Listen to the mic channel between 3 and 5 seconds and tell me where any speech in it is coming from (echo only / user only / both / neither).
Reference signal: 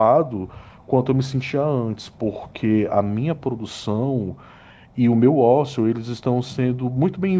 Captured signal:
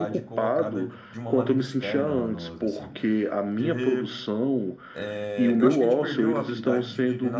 both